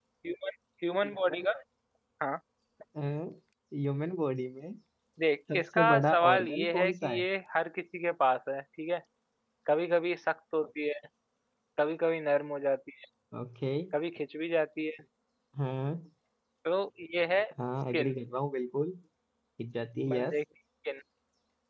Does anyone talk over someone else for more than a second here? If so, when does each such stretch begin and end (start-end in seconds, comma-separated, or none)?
5.5-7.2